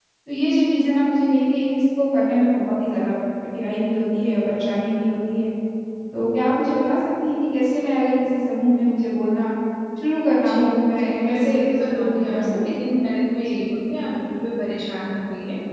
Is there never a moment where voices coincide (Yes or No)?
No